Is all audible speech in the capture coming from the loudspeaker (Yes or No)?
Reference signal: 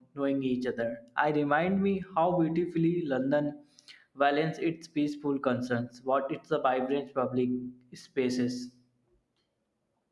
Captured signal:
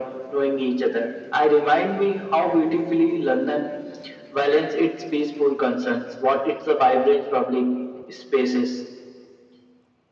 Yes